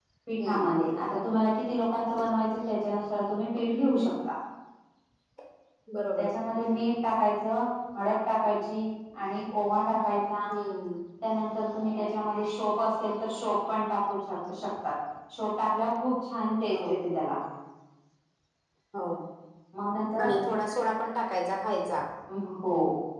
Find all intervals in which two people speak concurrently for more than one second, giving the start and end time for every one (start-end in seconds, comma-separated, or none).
none